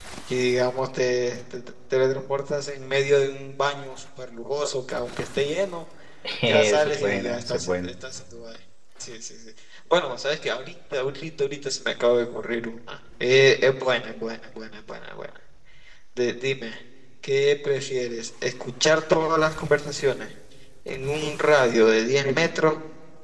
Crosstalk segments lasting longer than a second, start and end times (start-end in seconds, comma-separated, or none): 6.5-7.9